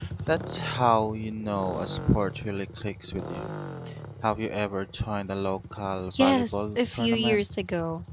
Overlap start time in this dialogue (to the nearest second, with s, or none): 6 s